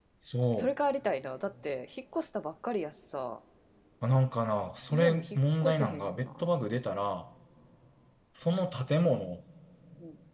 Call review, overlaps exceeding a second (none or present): present